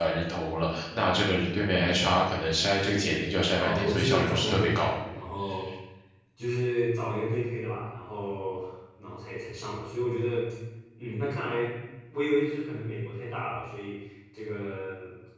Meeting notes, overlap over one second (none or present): present